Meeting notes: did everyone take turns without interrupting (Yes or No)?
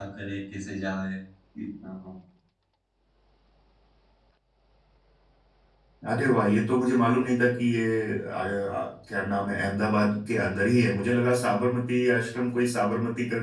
Yes